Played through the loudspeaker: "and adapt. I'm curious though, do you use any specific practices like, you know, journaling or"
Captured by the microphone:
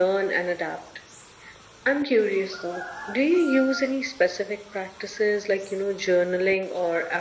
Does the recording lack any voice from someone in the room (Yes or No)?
Yes